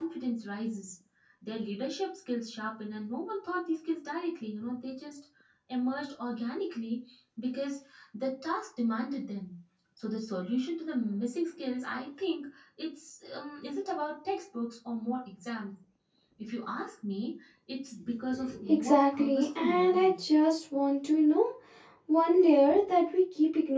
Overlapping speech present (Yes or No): Yes